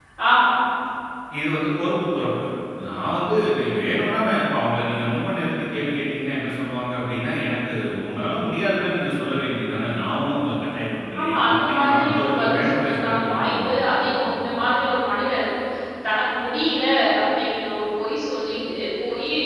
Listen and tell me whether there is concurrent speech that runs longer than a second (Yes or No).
Yes